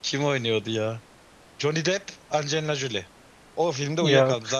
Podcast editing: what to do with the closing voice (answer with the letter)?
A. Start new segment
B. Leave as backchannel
B